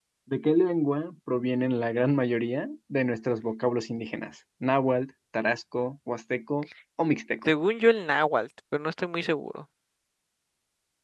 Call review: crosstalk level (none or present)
none